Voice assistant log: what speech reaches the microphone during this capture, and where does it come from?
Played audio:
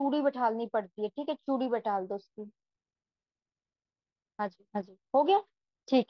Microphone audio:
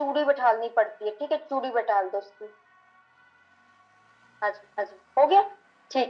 echo only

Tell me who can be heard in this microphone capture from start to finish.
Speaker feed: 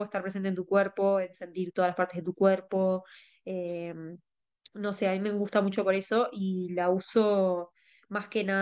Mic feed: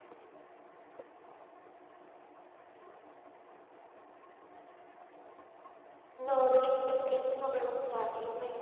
user only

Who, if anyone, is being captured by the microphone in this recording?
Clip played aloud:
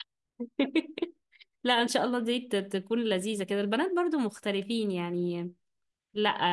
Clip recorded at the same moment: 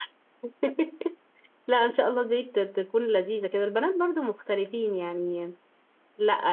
echo only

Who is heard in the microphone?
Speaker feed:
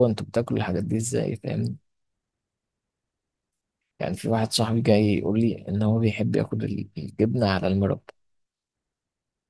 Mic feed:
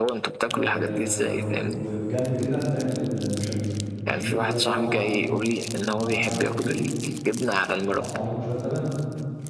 both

